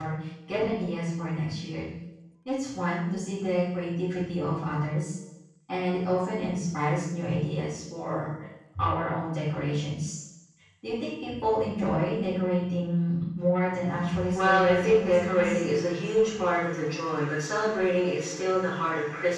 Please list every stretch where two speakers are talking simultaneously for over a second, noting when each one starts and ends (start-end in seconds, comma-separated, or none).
14.3-15.6